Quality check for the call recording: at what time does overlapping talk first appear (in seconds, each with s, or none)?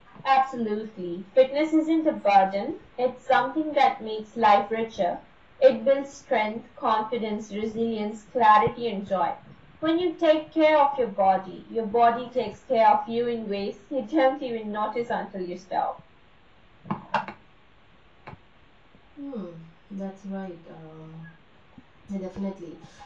none